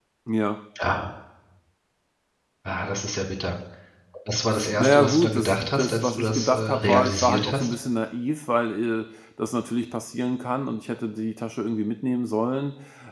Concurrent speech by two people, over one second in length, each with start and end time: 4.8-7.7

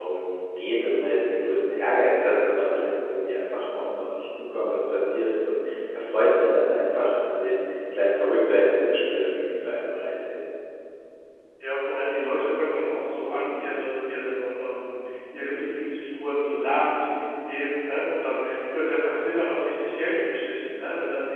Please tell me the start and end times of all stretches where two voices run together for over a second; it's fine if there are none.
none

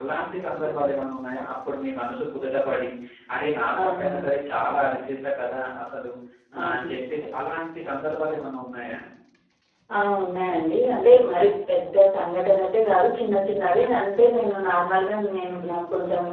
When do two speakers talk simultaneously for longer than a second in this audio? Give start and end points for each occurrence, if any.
none

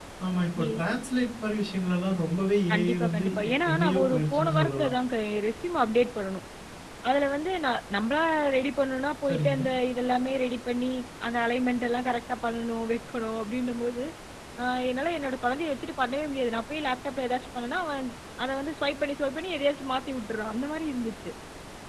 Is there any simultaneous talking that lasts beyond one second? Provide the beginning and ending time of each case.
2.7-4.9

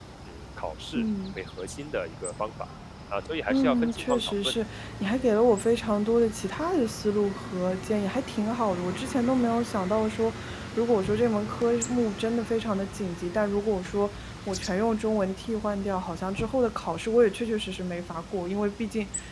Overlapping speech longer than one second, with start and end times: 3.5-4.7

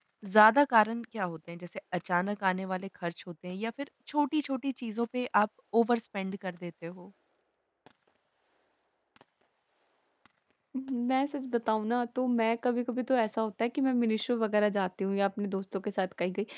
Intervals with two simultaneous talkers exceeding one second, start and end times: none

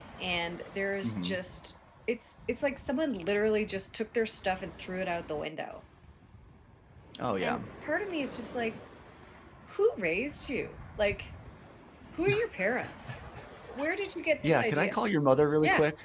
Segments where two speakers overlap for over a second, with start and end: none

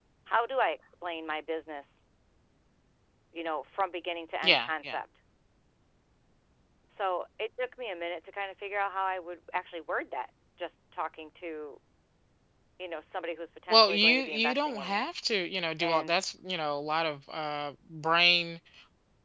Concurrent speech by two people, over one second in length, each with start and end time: 13.7-15.1

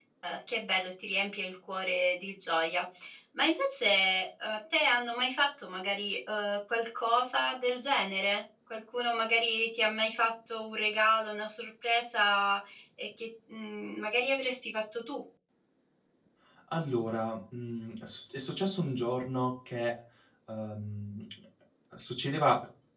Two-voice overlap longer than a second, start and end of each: none

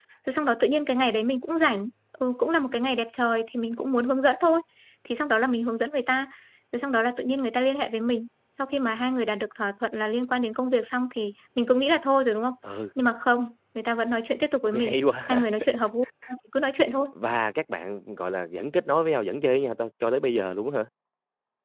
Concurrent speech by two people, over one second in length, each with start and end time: none

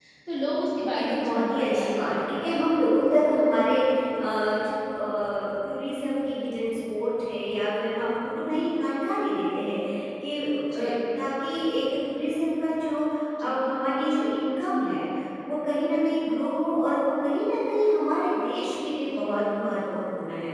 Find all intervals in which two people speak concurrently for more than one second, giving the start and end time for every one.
0.9-2.5

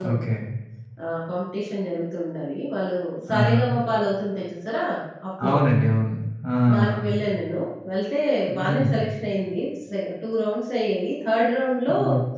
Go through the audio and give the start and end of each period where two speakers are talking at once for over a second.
none

